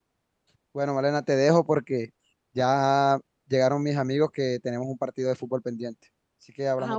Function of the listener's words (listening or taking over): taking over